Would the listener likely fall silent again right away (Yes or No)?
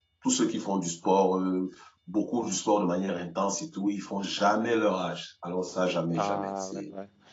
No